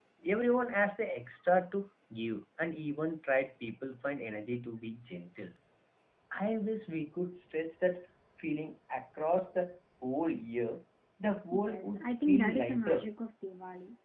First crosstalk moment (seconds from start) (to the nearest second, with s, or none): 12 s